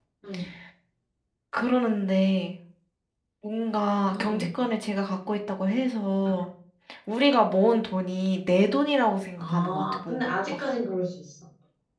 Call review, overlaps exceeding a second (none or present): present